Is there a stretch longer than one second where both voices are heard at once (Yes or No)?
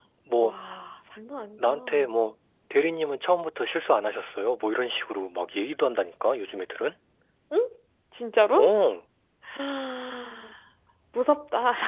No